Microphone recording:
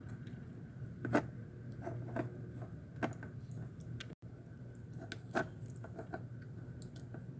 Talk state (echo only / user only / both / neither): neither